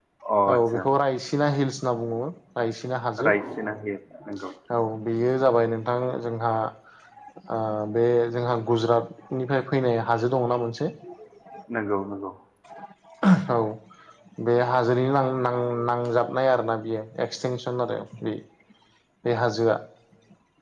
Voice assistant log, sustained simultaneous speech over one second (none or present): none